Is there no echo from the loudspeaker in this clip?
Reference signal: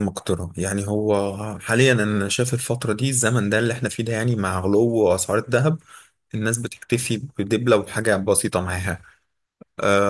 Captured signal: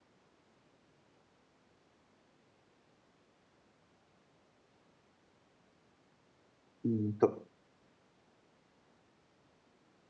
Yes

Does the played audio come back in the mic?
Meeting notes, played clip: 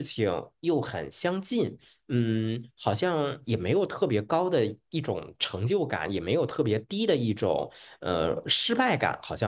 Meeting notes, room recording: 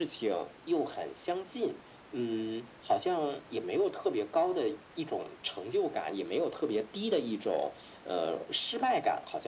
Yes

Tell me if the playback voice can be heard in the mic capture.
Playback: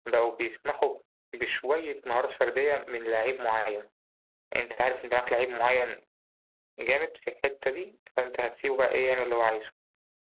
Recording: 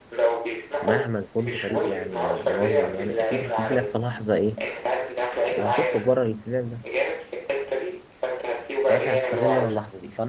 Yes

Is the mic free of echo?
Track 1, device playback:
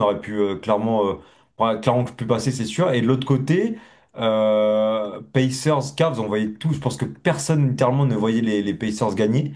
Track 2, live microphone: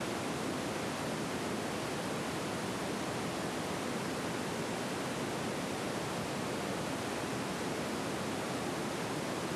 Yes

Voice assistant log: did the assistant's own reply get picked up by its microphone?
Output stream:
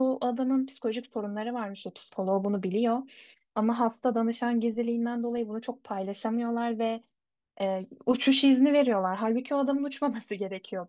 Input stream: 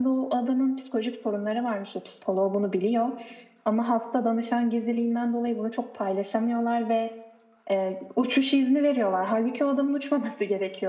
Yes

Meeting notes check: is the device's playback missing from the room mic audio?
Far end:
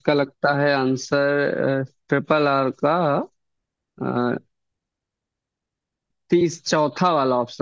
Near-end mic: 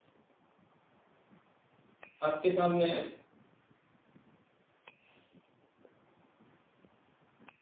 Yes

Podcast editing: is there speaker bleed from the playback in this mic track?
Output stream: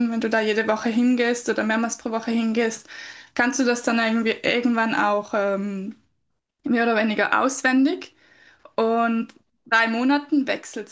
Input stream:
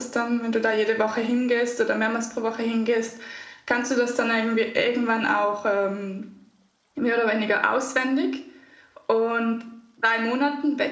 Yes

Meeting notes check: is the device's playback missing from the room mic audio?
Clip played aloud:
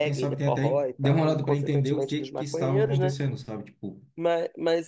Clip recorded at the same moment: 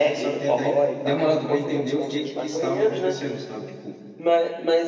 No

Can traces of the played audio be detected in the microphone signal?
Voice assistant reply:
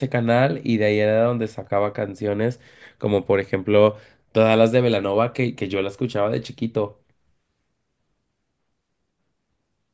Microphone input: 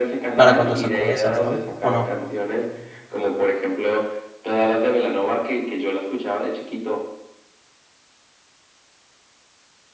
Yes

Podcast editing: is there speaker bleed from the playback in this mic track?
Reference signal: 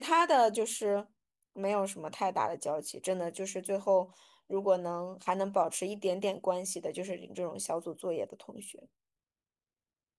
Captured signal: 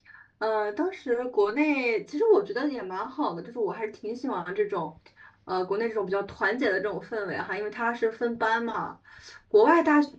No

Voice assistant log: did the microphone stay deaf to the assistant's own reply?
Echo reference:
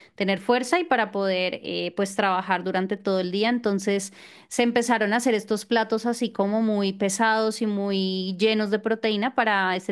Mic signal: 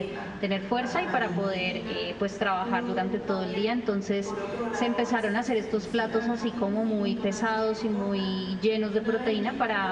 No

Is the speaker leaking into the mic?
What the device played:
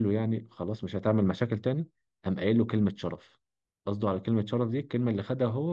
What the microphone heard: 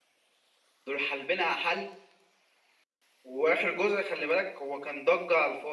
No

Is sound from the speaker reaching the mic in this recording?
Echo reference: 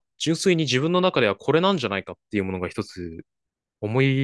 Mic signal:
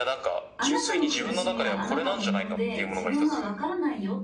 Yes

